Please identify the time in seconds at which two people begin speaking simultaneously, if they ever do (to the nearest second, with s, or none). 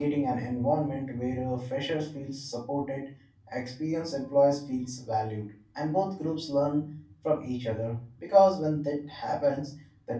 none